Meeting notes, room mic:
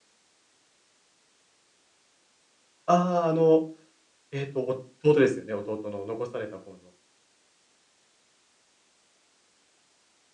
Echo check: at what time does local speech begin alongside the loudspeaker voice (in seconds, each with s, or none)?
2.8 s